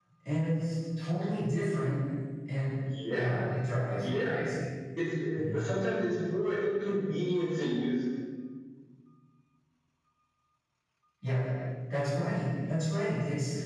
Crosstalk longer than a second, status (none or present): none